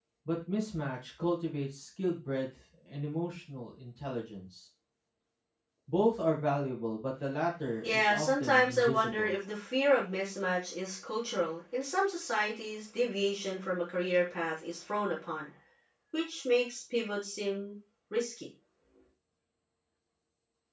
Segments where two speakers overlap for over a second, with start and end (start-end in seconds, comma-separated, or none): 7.8-9.3